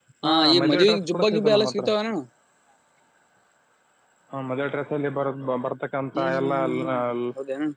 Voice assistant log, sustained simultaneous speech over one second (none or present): present